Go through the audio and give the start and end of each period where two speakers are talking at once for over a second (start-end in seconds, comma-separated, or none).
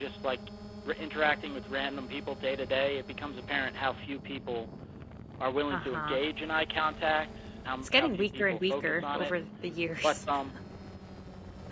7.8-9.3